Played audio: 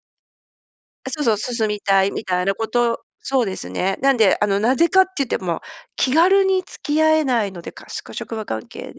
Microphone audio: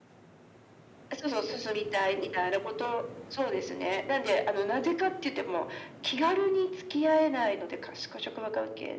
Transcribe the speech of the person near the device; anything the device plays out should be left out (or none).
none